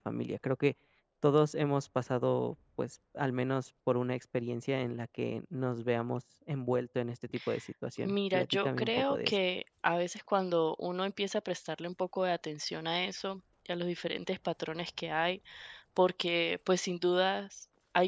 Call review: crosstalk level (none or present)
present